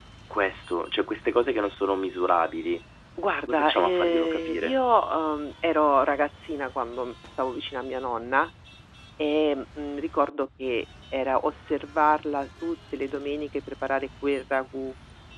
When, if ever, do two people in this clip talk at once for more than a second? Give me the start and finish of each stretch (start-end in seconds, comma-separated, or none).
3.5-4.8